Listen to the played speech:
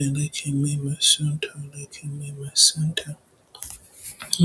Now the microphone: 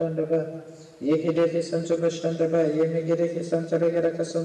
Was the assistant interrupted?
Yes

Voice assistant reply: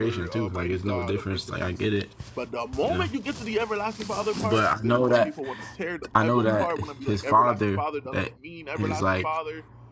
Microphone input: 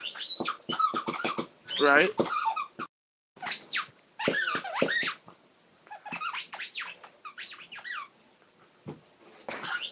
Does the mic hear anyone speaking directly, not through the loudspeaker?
Yes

